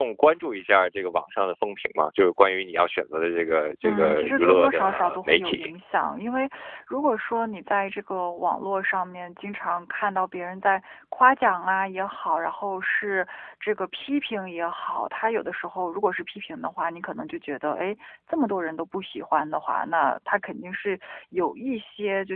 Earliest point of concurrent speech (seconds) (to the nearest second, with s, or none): 4 s